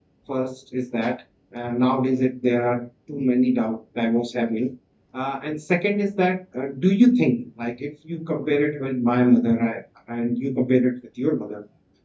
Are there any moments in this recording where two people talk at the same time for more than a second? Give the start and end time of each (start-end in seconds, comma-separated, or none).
none